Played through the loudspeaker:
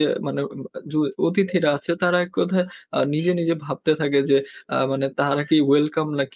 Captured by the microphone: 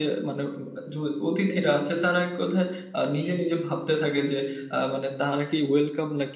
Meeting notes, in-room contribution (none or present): none